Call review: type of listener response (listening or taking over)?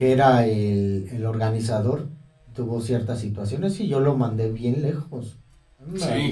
listening